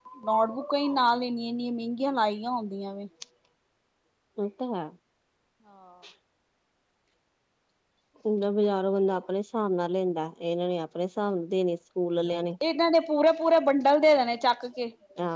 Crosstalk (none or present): none